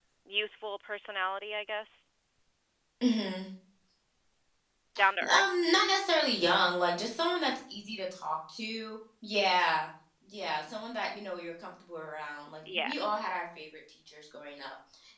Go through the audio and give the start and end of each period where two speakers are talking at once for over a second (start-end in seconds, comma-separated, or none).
none